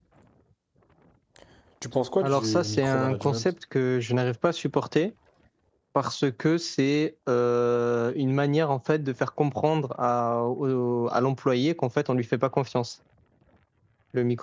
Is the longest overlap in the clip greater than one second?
Yes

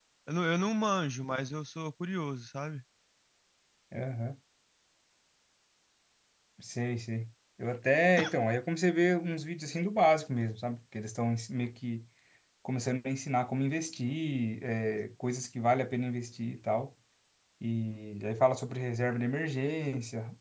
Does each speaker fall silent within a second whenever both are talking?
Yes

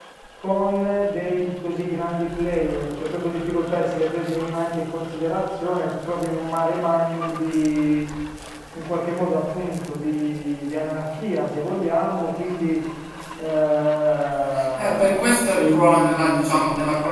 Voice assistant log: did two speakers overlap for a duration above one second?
Yes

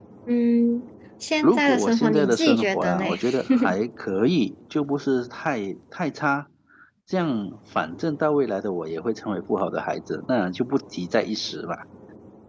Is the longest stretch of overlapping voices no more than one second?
No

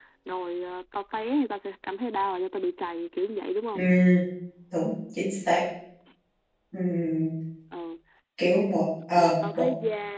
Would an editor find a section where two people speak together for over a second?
No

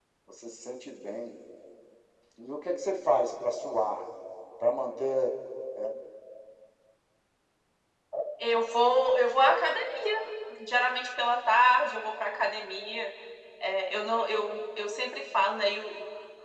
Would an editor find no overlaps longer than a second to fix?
Yes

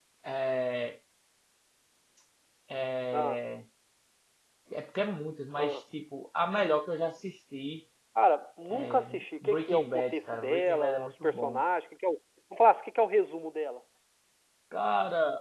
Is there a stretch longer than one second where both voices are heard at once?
Yes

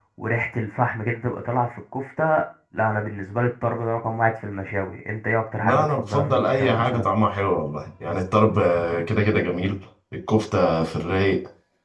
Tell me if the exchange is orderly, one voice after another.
No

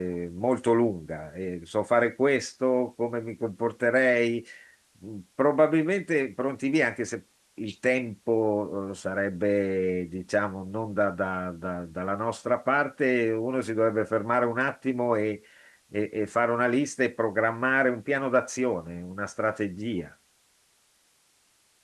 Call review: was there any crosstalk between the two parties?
No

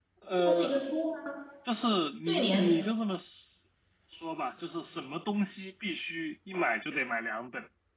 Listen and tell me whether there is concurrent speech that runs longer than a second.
No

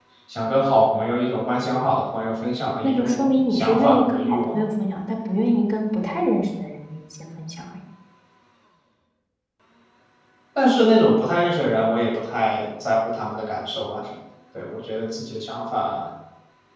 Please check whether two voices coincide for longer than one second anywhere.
Yes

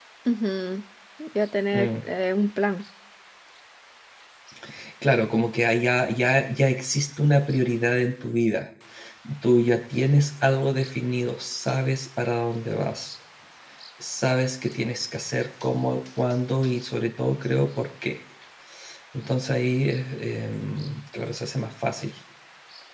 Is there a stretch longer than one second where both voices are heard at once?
No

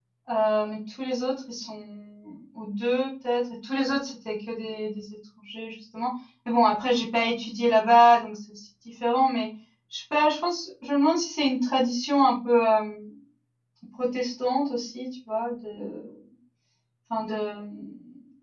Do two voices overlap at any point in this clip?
No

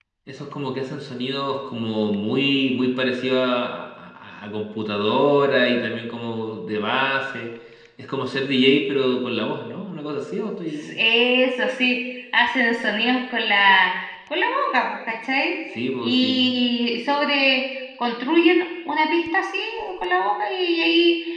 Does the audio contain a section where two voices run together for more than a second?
No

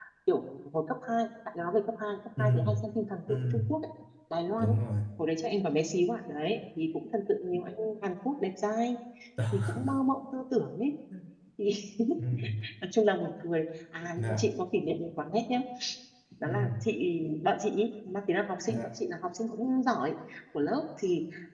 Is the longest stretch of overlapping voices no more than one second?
Yes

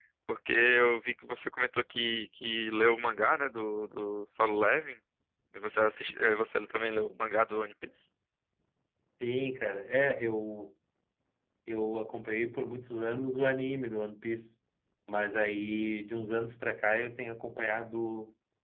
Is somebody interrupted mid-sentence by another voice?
No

